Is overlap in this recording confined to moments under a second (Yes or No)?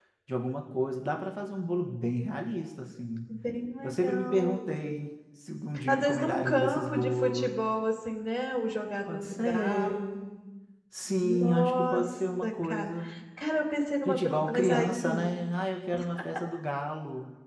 No